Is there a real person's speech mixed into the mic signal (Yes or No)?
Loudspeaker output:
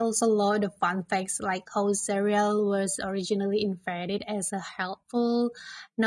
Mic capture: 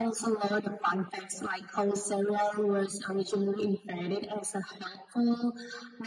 No